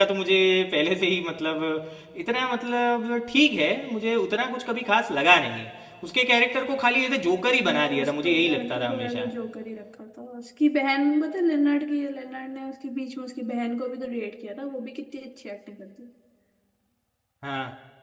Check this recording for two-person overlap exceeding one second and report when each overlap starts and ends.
7.6-9.3

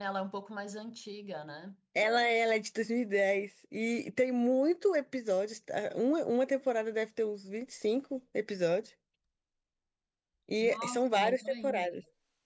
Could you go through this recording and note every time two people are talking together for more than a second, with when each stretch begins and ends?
10.6-11.9

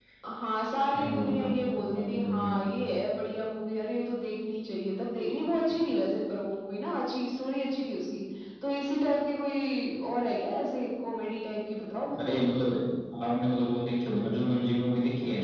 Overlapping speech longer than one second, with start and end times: 0.9-2.6

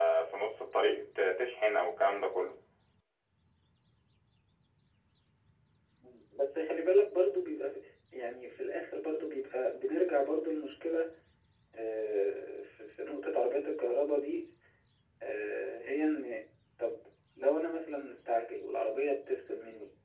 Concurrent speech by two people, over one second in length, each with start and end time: none

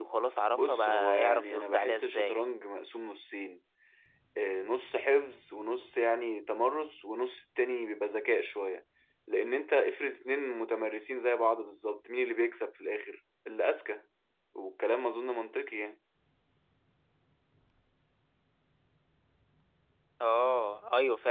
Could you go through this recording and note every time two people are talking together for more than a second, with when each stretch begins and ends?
0.5-2.4

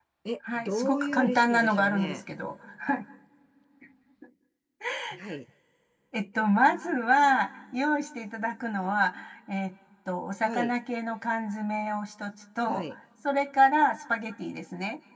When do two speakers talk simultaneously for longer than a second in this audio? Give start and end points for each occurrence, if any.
0.6-2.2

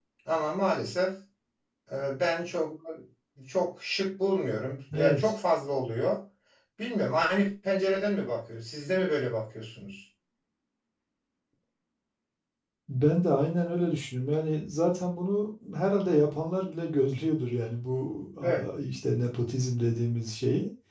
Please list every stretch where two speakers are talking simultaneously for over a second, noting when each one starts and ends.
none

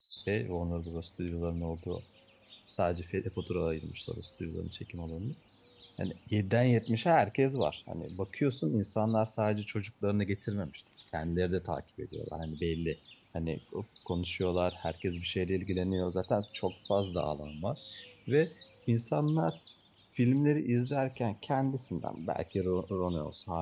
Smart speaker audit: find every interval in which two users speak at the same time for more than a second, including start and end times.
none

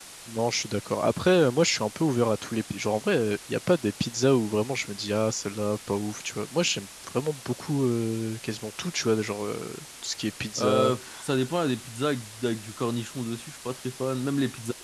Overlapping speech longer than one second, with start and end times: none

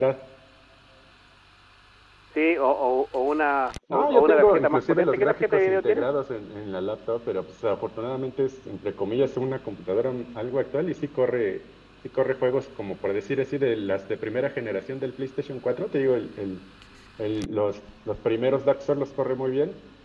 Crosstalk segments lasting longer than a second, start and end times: 3.9-6.0

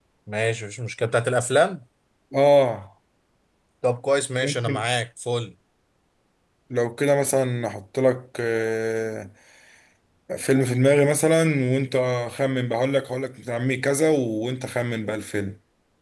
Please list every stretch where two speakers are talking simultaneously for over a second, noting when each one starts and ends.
none

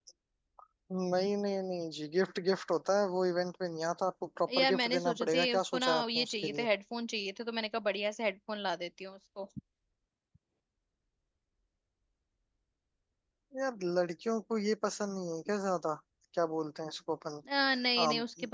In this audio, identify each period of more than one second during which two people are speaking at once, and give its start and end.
4.6-6.7

